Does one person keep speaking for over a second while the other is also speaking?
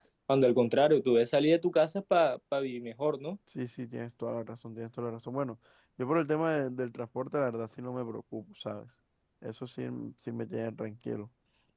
No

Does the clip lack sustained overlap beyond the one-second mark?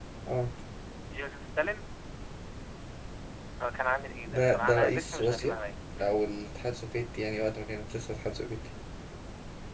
No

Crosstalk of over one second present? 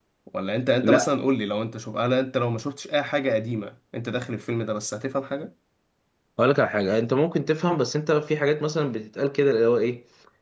No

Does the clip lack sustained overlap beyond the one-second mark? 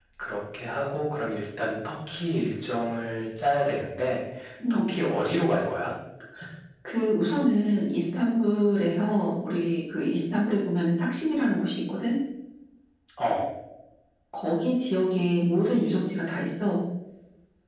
Yes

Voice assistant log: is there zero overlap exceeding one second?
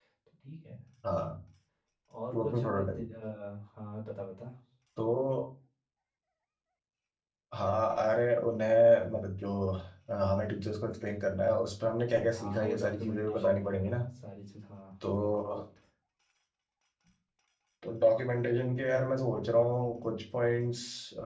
No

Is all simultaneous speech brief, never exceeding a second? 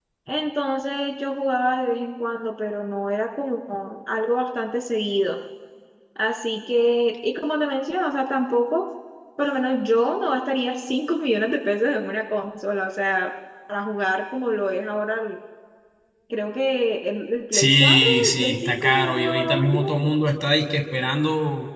No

